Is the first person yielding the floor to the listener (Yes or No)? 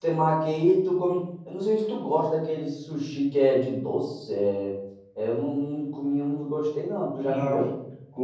Yes